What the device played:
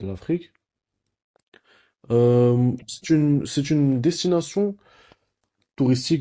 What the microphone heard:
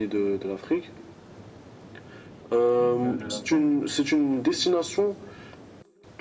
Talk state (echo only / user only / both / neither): both